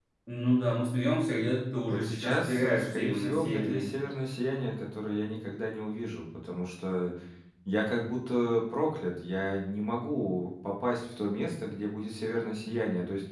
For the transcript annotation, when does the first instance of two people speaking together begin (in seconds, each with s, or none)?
1.9 s